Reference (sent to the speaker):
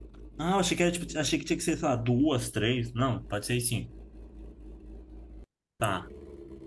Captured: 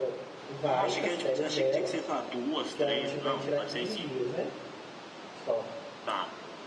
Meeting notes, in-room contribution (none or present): present